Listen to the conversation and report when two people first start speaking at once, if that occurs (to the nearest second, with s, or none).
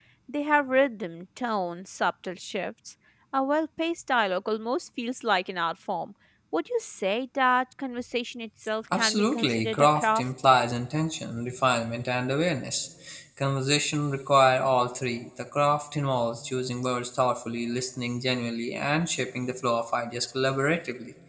9 s